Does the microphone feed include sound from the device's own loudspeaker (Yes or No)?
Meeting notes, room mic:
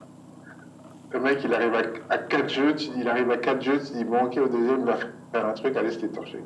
Yes